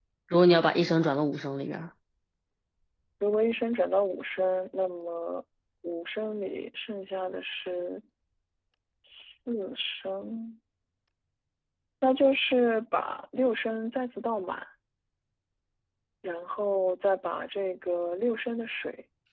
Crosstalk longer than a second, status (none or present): none